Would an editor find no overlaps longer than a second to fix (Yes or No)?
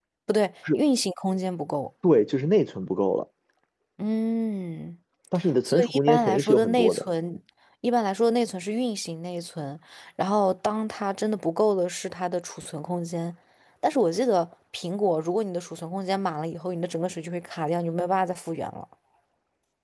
No